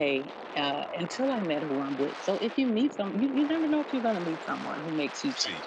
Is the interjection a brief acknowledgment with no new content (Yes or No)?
No